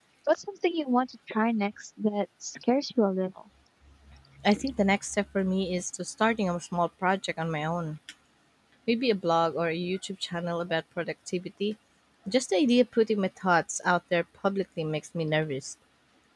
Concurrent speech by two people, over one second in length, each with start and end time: none

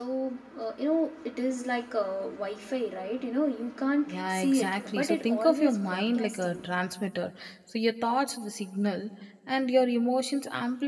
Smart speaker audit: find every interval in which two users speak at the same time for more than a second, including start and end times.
4.1-6.7

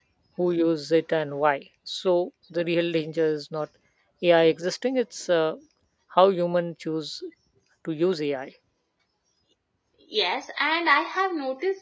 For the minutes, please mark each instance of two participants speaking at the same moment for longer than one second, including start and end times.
none

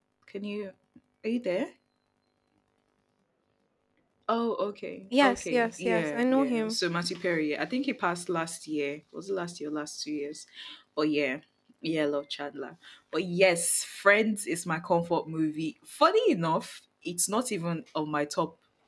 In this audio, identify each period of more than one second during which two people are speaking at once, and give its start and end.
5.2-6.8

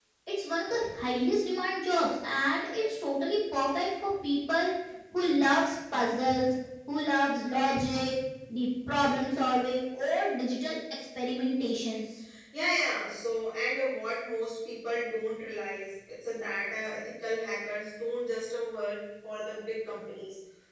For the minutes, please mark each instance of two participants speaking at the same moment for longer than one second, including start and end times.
none

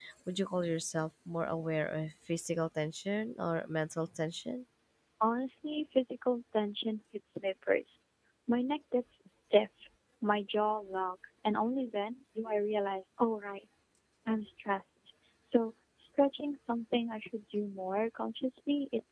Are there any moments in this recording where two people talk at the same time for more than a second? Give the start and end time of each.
none

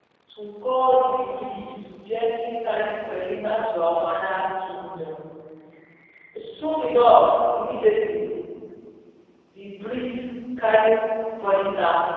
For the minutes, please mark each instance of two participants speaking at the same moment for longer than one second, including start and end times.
none

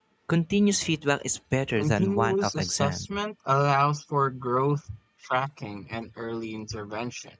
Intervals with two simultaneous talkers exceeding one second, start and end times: 1.8-3.1

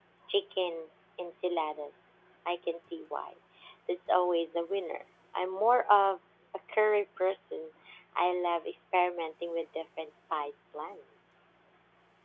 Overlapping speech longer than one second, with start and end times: none

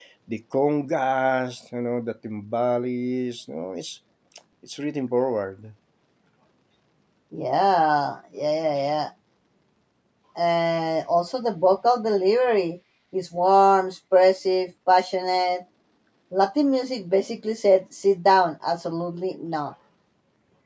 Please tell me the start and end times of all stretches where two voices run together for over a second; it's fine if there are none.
none

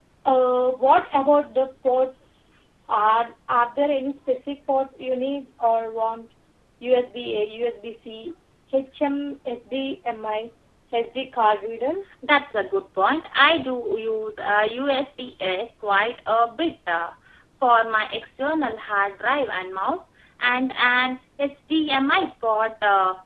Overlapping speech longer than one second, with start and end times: none

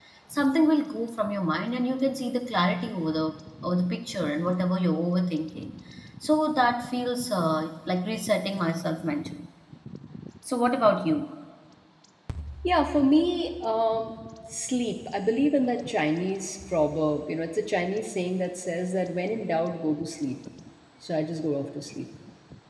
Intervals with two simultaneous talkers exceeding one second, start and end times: none

